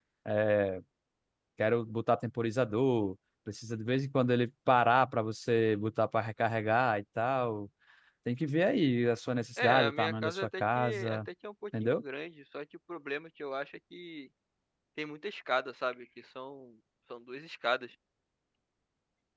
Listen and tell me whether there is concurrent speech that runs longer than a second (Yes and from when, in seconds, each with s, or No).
Yes, from 9.6 s